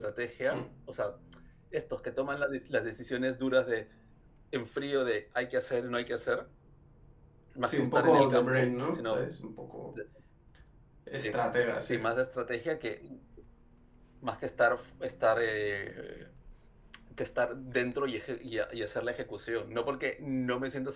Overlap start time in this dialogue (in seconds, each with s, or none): 7.7 s